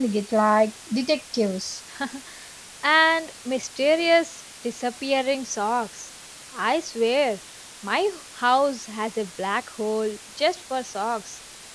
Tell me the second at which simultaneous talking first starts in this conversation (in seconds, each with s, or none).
none